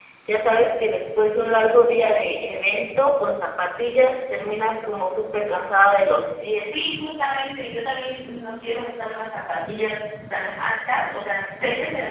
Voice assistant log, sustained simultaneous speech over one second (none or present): none